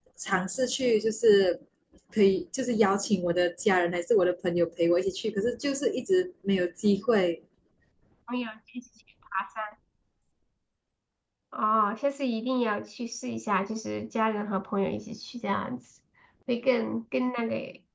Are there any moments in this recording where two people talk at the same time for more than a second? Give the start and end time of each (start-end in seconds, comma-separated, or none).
none